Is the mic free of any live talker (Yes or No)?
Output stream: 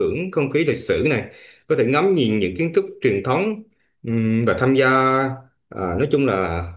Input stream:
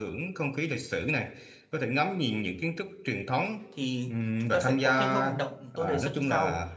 No